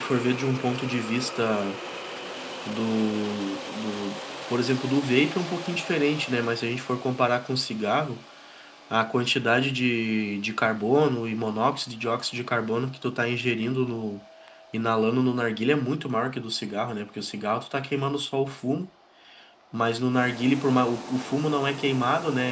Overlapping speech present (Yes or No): No